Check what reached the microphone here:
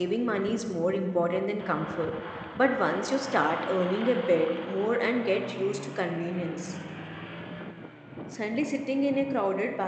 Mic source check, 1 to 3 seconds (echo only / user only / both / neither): user only